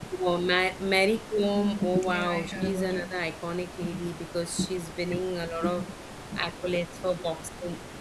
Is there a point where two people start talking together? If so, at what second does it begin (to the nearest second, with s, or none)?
1 s